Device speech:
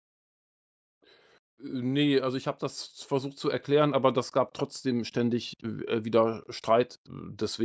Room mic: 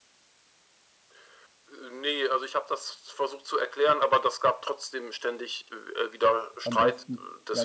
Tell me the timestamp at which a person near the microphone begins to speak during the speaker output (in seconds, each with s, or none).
6.6 s